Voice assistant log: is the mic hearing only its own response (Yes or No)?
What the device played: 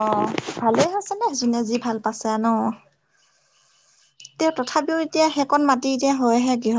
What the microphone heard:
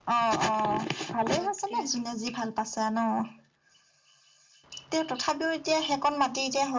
No